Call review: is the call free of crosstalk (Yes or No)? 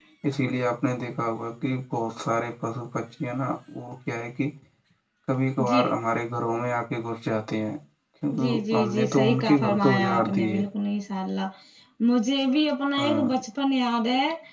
No